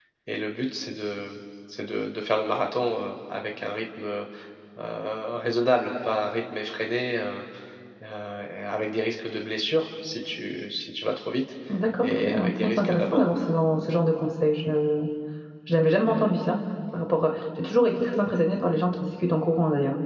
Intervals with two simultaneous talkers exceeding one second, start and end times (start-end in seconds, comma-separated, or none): 12.0-13.3